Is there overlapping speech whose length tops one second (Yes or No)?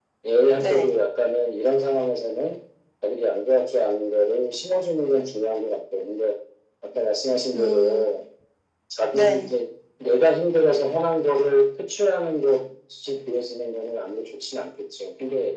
No